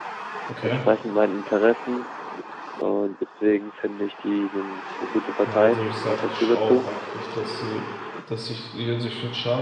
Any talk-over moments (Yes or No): Yes